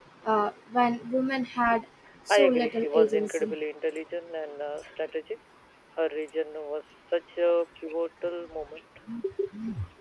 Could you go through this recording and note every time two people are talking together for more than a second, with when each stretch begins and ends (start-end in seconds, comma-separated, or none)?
2.3-3.5